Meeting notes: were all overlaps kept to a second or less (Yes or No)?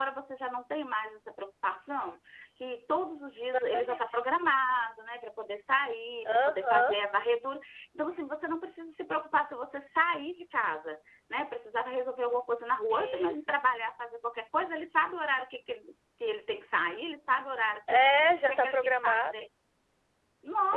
No